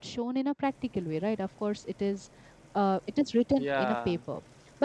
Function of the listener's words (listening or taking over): listening